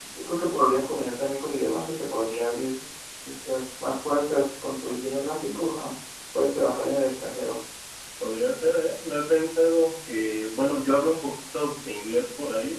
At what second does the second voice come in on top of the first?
none

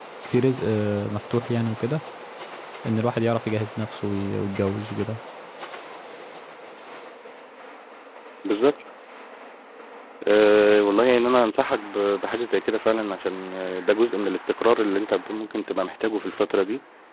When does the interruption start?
none

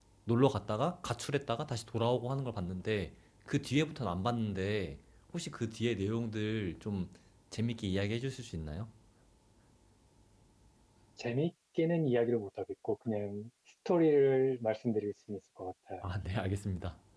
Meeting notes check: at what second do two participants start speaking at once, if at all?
none

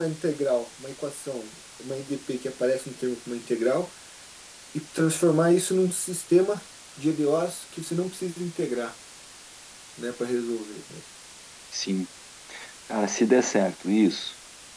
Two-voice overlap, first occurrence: none

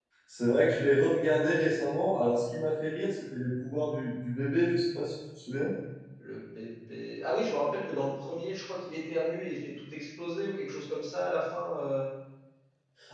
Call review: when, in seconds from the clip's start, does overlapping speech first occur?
none

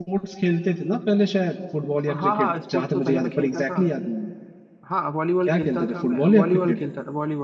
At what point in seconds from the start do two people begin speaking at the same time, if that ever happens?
2 s

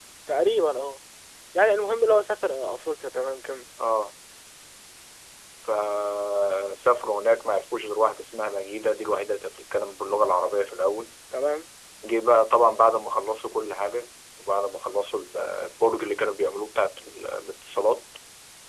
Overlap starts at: none

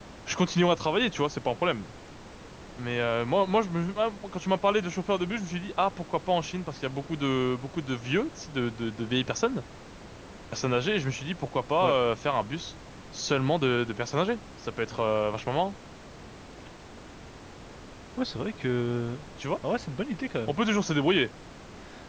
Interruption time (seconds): none

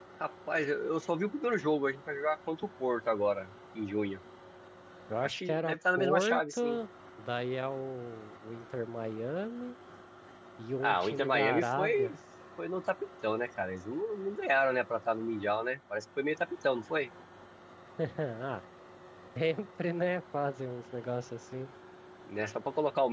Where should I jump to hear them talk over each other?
5 s

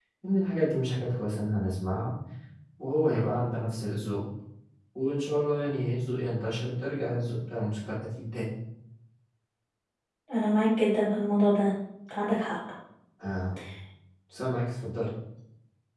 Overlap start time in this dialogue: none

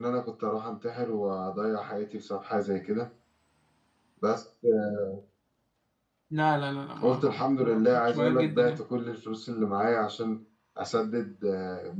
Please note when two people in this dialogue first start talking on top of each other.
7 s

